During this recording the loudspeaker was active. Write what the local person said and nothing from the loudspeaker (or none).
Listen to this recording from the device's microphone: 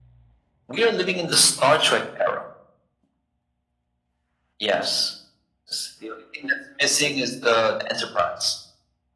none